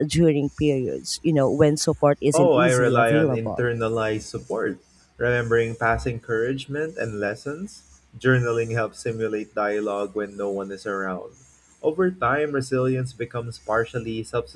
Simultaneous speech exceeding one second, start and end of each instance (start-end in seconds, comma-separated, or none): 2.3-3.6